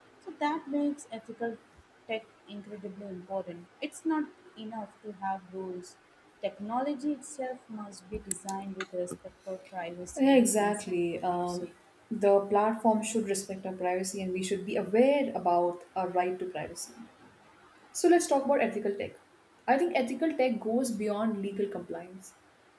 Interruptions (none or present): present